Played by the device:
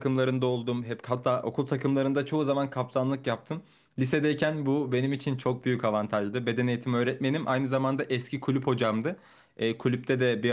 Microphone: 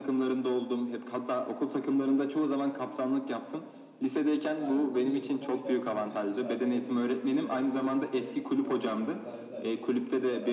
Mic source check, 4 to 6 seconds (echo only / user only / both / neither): both